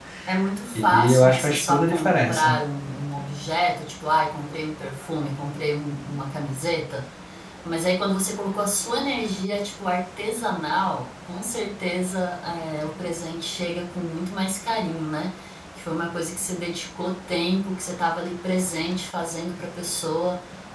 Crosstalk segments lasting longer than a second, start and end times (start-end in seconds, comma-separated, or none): 0.7-2.6